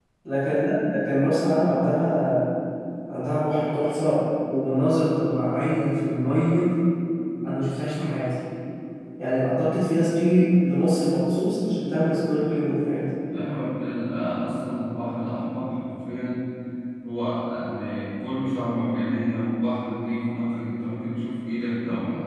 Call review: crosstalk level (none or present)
none